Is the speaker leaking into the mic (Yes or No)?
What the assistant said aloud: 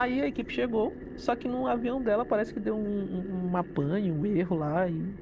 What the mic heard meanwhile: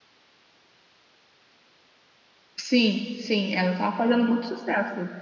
No